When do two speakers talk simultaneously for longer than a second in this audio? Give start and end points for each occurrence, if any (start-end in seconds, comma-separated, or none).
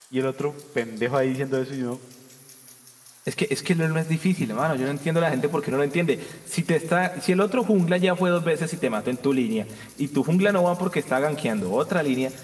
none